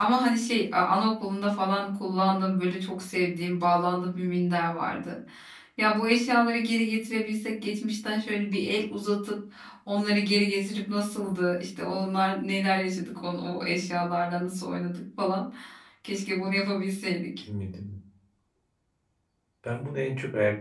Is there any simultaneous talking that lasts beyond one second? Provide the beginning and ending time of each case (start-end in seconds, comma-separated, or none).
none